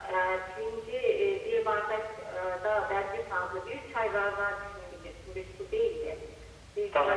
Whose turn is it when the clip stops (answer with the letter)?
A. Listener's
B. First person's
B